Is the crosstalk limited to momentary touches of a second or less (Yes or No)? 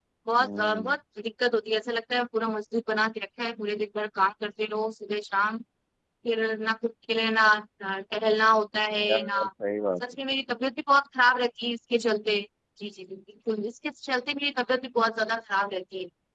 Yes